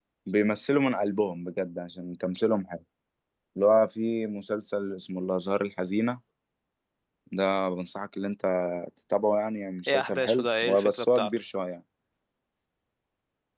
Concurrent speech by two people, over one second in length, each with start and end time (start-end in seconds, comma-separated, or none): 9.9-11.3